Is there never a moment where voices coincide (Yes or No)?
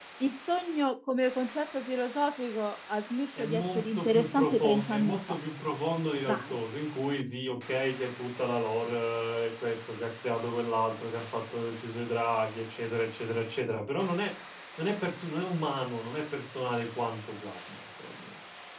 No